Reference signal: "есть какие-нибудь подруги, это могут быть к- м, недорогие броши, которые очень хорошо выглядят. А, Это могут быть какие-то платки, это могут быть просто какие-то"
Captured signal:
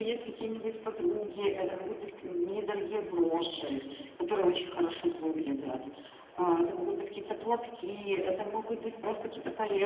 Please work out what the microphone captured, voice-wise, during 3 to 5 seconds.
echo only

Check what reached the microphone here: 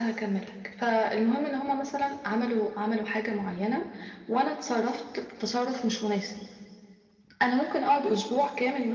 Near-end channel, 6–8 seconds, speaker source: echo only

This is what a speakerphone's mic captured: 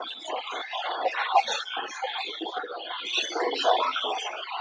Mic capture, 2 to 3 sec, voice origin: echo only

